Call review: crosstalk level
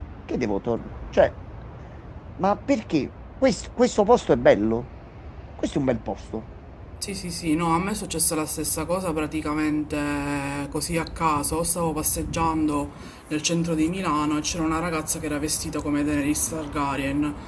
none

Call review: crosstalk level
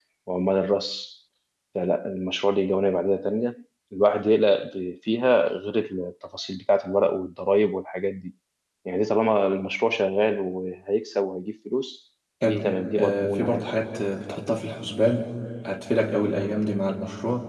present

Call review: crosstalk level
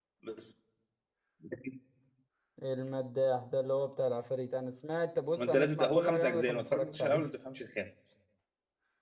present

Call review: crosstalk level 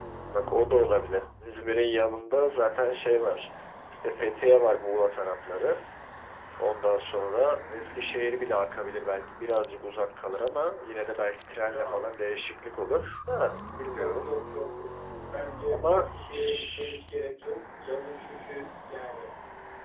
present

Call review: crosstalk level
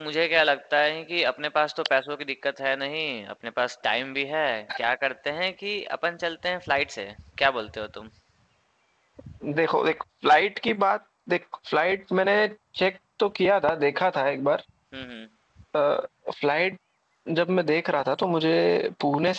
none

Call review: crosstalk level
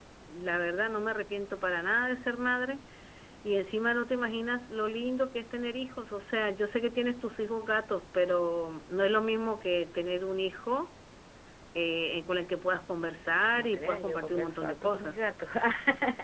present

